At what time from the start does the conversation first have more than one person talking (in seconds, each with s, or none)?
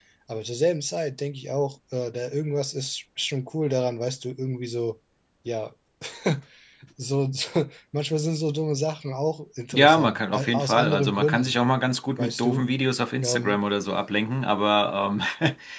9.7 s